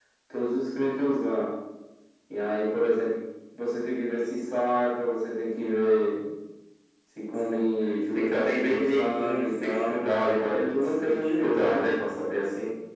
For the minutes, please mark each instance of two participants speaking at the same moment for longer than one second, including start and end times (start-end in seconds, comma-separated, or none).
8.1-11.8